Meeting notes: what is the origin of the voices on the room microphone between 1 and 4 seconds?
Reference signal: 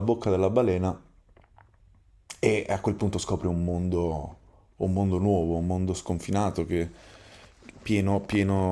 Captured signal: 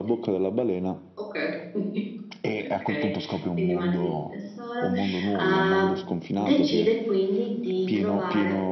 both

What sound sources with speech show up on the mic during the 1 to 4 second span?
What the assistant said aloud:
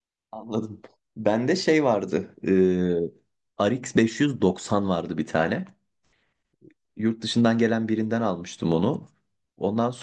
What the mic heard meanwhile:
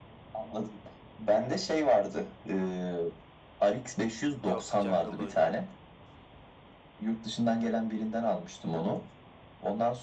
echo only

